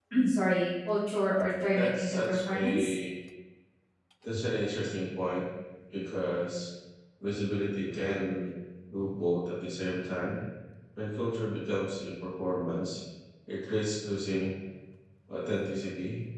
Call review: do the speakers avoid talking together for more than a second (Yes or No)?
No